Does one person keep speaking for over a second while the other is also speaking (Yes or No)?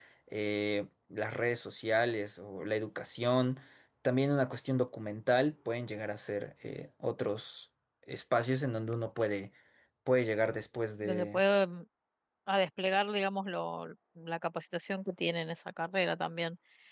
No